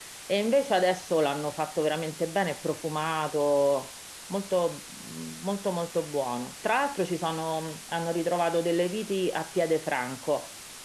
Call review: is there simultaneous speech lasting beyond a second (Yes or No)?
No